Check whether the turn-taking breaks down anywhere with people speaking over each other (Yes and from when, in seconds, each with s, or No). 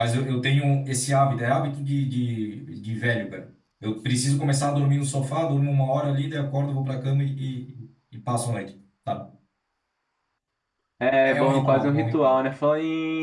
Yes, from 11.2 s